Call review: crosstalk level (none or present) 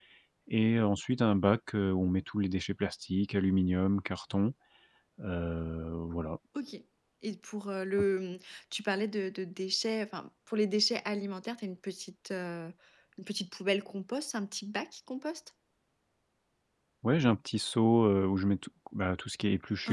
none